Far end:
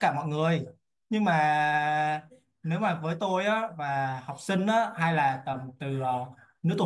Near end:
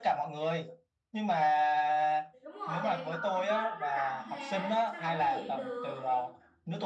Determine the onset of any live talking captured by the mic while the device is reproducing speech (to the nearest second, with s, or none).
2 s